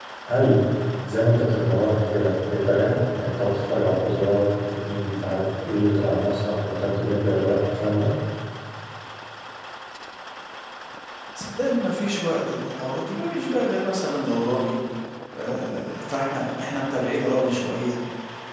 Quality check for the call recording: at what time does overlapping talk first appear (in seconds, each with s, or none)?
none